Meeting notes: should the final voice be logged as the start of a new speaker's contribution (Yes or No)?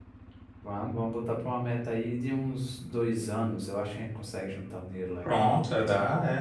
Yes